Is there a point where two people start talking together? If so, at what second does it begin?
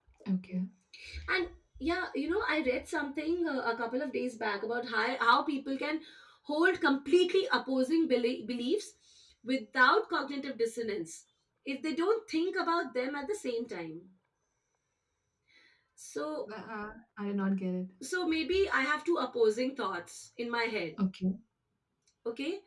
none

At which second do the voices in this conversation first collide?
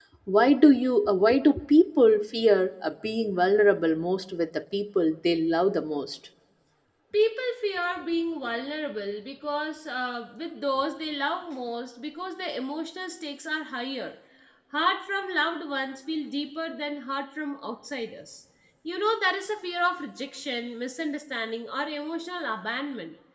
none

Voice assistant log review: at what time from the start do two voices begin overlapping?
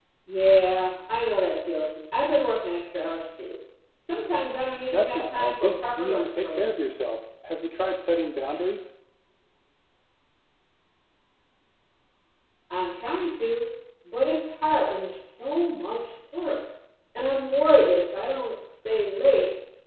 4.9 s

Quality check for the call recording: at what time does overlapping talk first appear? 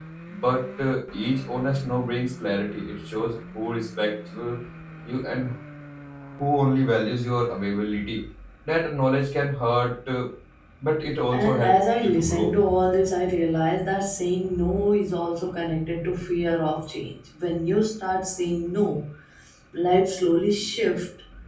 11.3 s

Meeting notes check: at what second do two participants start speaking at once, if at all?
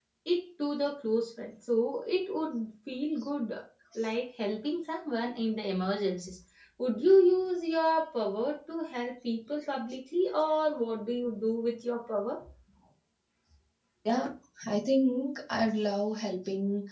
none

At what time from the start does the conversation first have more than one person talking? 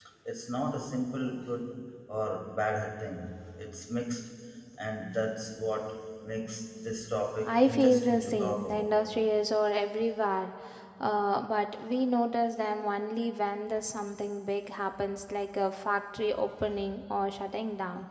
7.4 s

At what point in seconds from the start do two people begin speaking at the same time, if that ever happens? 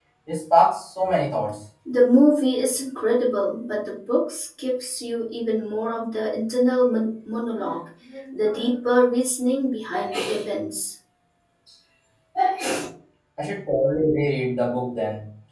none

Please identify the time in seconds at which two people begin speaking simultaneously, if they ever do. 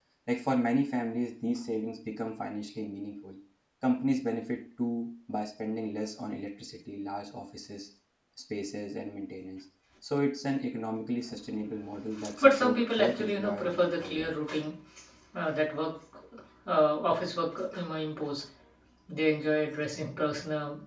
12.4 s

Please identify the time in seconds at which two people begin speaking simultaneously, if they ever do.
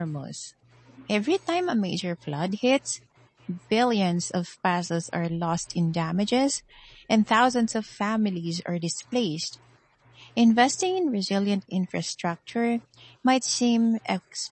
none

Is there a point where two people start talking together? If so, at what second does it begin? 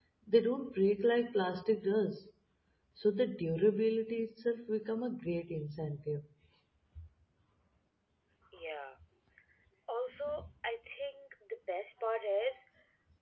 none

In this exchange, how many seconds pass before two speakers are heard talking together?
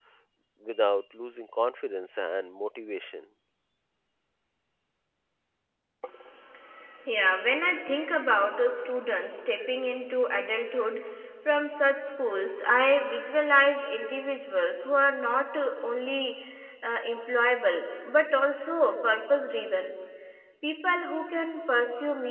none

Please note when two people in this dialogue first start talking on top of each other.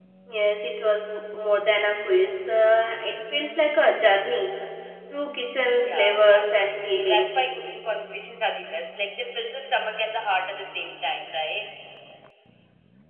5.8 s

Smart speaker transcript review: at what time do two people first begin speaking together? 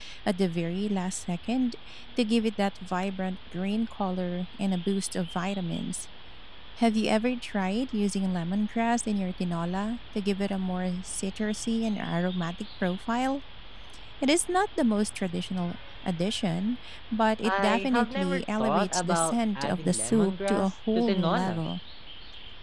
17.4 s

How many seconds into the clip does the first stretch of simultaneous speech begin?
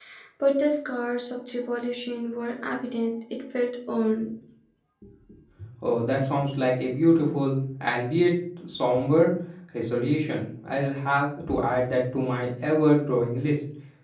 none

